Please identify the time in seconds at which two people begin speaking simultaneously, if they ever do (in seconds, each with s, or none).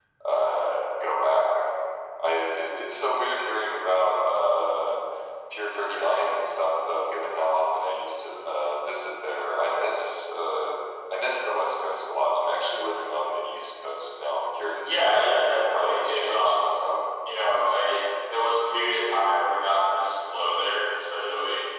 14.8 s